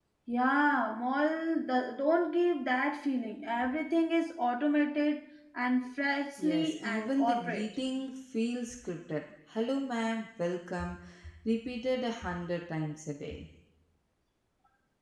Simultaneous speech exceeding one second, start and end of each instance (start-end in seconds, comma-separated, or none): 6.4-7.7